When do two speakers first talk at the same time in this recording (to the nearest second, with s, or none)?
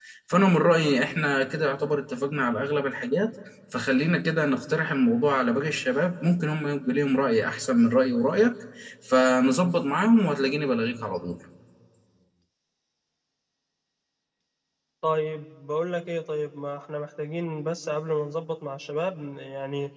none